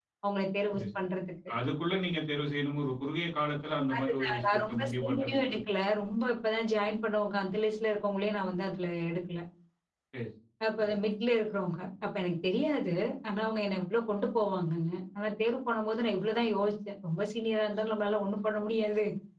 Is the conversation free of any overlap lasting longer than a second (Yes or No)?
No